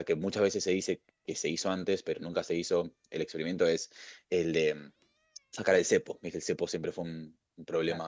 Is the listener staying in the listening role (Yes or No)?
Yes